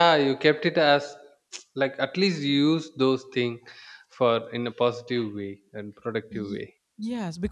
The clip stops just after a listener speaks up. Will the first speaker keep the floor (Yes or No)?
No